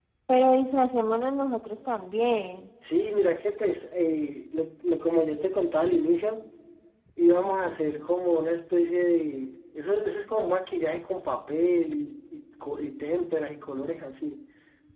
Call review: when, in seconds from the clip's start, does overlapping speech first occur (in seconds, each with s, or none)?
none